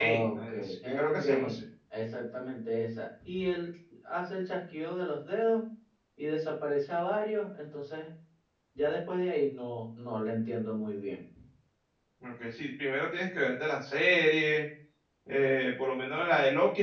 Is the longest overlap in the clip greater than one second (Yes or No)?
Yes